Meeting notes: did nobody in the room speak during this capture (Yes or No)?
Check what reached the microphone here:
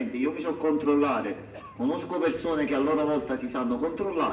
Yes